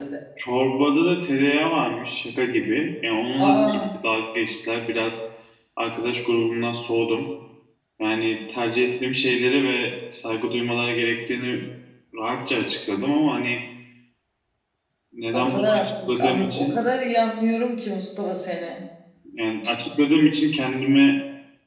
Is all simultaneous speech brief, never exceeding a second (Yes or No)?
No